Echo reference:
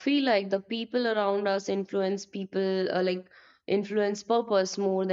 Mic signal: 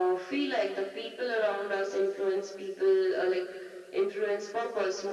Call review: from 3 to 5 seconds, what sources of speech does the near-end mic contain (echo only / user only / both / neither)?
echo only